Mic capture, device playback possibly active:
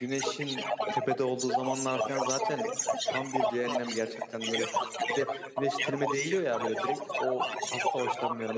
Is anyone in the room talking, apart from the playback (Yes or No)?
Yes